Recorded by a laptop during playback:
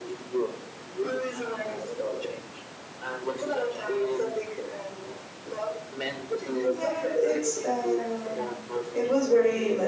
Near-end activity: present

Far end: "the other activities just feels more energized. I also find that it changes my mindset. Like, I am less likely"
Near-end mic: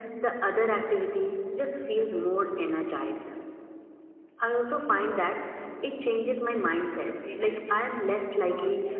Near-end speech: present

